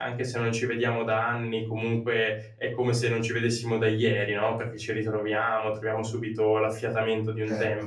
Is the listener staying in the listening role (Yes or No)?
Yes